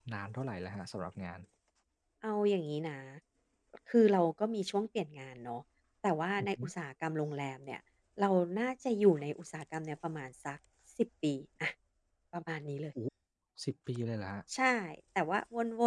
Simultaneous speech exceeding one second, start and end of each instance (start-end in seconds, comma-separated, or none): none